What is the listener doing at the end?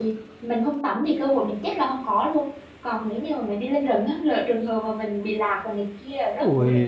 taking over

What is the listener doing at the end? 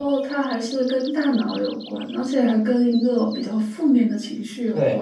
taking over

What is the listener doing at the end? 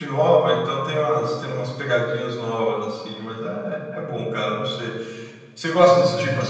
listening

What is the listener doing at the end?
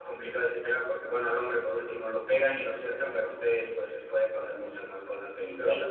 taking over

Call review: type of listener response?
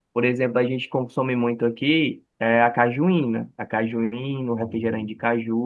listening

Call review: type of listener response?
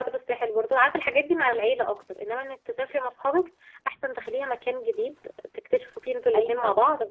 taking over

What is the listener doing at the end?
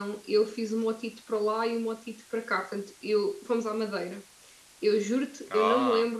listening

